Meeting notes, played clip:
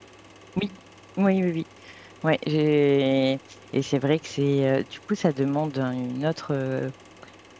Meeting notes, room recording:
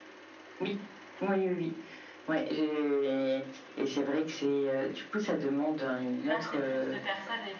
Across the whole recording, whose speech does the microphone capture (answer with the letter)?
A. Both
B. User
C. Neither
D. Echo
A